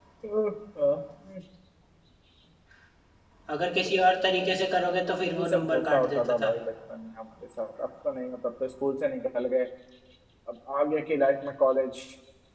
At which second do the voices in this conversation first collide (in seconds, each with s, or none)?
5.3 s